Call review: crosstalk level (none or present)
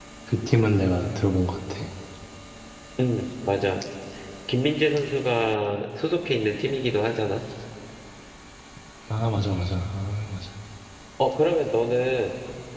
none